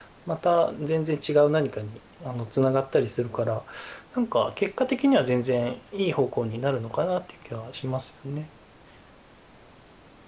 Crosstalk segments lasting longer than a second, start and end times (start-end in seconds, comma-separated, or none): none